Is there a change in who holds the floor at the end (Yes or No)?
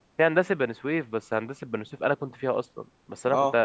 No